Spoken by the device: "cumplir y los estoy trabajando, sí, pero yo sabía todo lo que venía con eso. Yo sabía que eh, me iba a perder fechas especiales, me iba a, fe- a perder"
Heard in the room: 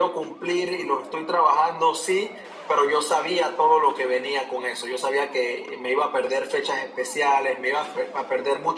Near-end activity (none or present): none